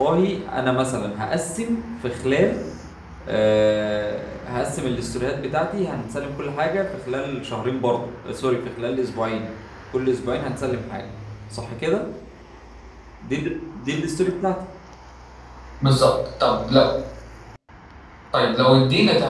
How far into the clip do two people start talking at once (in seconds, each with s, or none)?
none